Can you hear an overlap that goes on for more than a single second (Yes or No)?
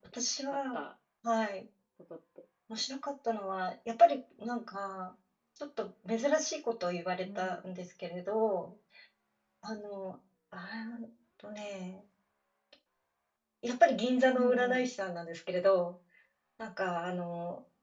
No